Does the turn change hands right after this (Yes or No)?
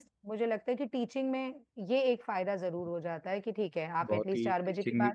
Yes